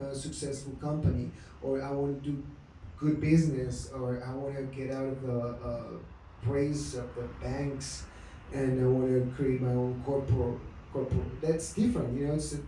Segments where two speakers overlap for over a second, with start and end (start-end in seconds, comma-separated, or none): none